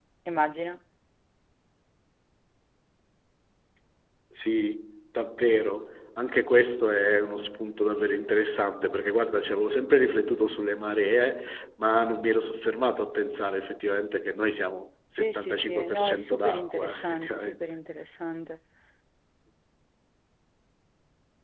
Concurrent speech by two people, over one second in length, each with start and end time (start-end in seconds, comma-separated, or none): 15.2-17.5